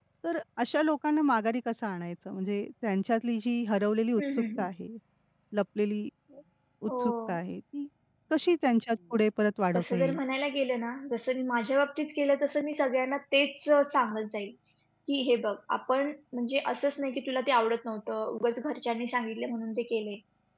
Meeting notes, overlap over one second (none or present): none